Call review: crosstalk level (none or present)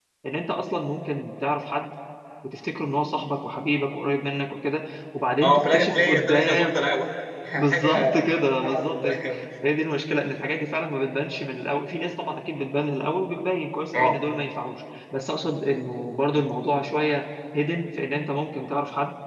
present